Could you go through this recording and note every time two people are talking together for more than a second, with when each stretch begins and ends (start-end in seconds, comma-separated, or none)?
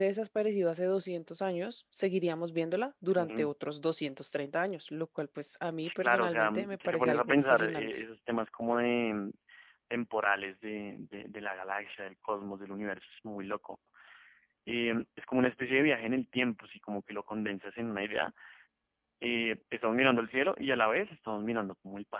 5.8-7.9